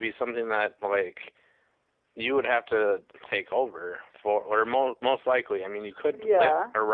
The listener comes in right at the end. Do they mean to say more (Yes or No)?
Yes